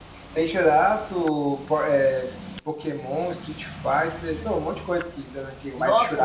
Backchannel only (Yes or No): No